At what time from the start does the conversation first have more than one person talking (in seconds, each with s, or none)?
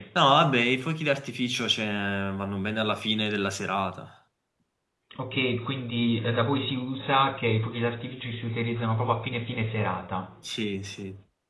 none